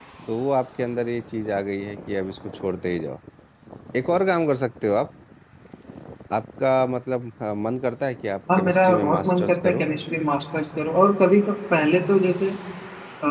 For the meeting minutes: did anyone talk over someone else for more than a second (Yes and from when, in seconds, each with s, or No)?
Yes, from 8.5 s